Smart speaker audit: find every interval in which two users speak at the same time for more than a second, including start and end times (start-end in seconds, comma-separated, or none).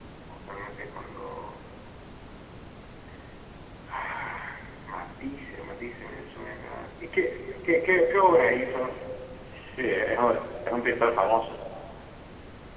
none